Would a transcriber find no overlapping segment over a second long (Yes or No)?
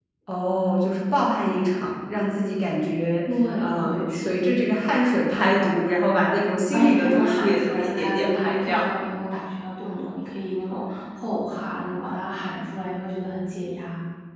No